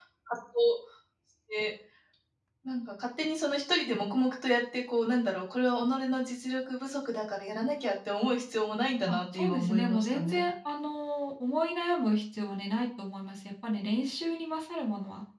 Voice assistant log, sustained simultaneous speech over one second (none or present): present